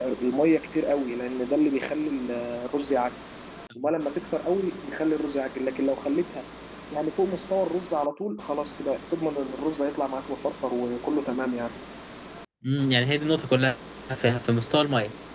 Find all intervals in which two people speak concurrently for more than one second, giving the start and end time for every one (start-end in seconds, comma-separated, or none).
none